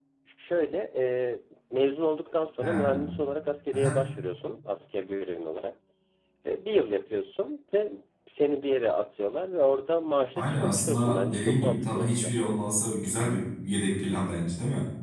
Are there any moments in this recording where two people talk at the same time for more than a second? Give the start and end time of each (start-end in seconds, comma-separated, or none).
10.3-12.3